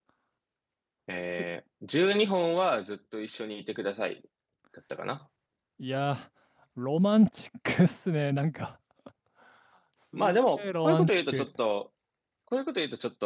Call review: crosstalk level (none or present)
present